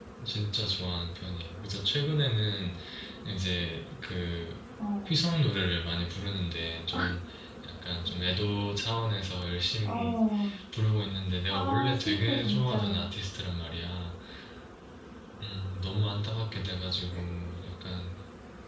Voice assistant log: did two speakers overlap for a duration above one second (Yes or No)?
Yes